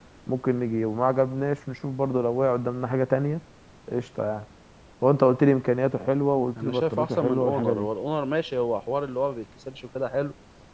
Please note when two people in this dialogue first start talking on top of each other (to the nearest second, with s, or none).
7 s